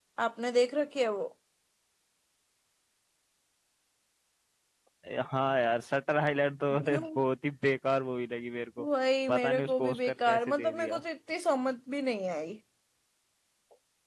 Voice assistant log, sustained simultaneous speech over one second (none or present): present